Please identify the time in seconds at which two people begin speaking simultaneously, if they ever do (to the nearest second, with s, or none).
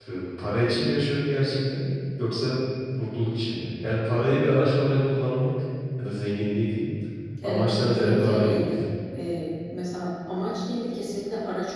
7 s